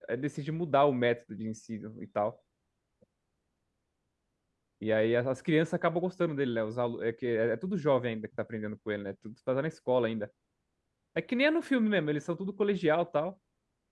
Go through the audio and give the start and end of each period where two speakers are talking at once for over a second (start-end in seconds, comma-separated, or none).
none